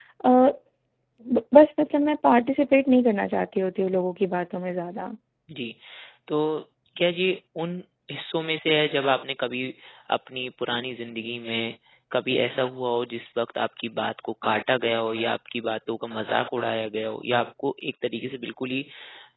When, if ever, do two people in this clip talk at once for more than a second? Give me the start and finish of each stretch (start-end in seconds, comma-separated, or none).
none